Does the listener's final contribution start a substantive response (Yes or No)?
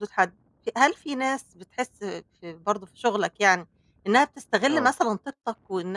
No